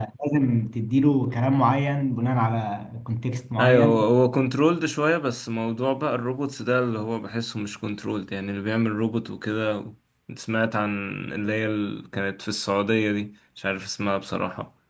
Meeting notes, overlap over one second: none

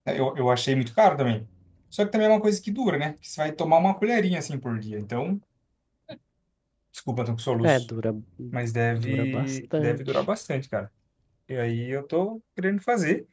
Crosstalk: present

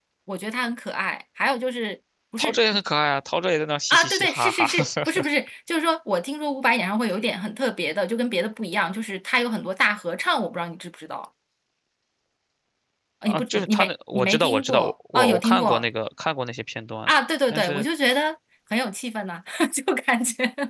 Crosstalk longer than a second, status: present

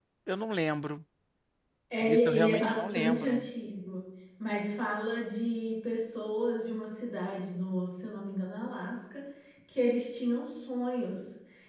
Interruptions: present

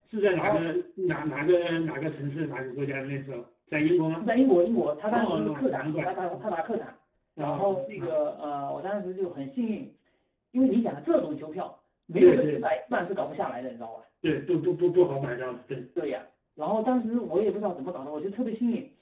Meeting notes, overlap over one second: present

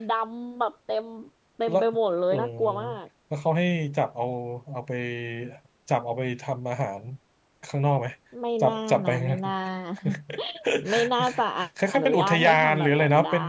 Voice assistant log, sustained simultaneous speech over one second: present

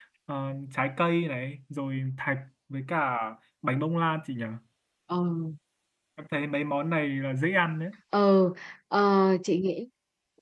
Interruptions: none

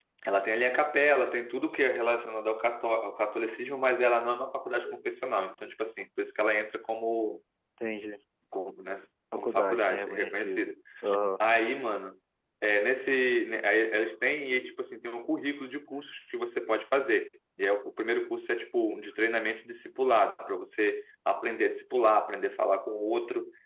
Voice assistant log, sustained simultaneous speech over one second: present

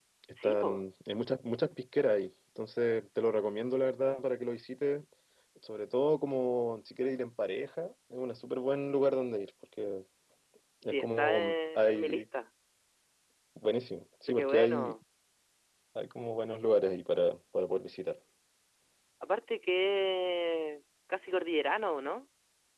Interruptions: present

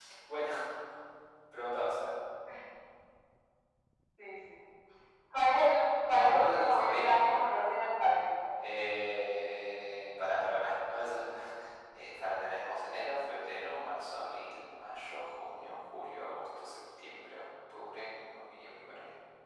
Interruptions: present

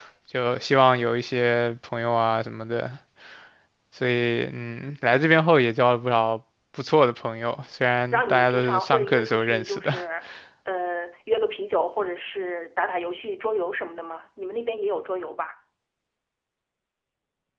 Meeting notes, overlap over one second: present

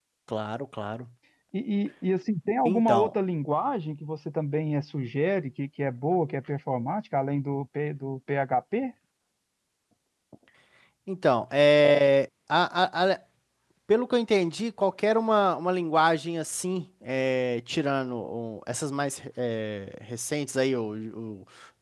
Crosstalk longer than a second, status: none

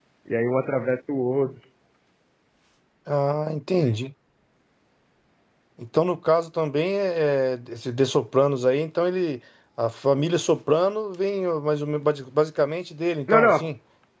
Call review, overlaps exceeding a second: none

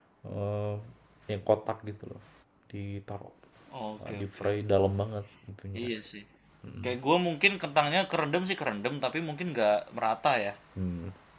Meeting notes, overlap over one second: none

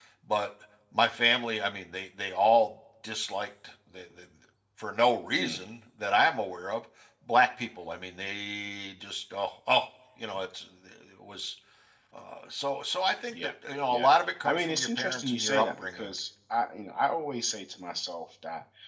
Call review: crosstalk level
present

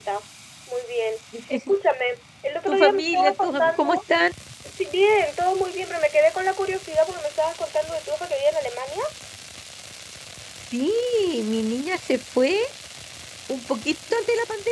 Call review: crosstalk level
present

